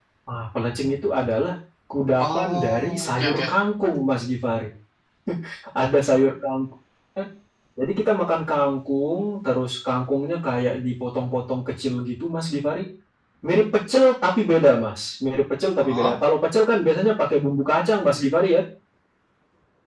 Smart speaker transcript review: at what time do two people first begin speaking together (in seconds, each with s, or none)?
2.2 s